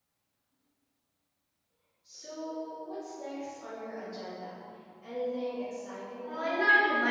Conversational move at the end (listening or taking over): taking over